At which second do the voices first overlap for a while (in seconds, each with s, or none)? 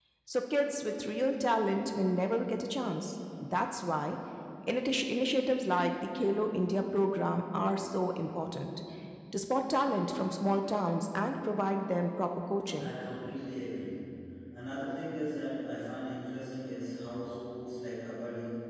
none